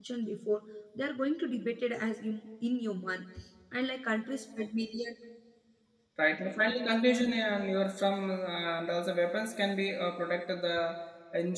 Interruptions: none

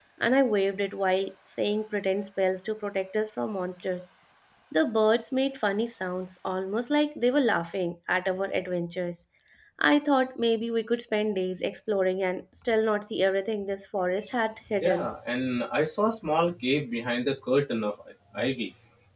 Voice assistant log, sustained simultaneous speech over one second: none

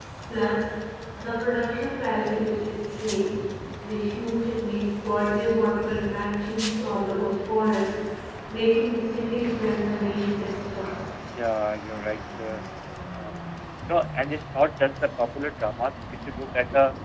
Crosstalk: none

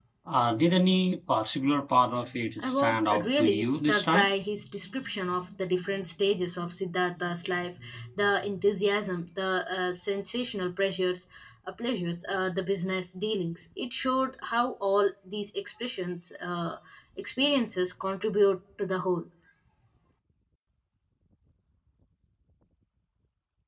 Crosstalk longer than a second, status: present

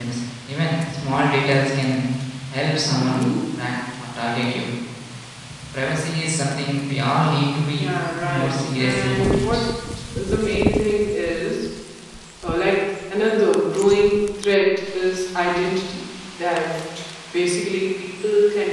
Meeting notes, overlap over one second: present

